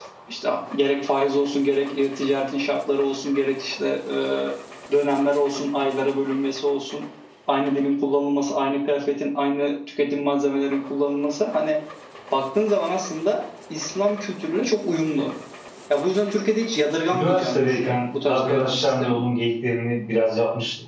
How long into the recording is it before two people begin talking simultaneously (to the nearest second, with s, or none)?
17 s